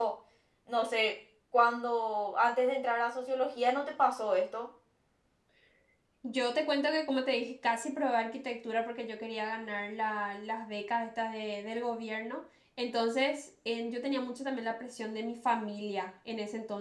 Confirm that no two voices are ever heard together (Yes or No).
Yes